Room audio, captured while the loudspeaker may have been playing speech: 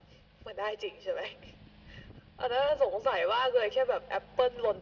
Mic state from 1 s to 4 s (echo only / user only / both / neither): echo only